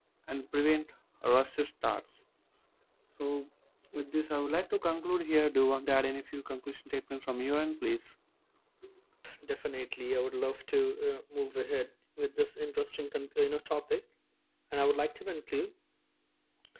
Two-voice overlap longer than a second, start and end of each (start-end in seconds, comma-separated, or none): none